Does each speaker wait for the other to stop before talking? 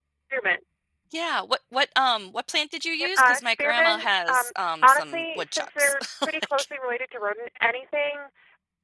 No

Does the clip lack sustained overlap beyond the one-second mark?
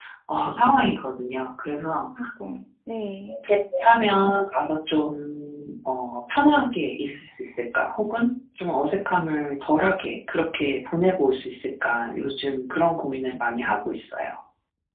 Yes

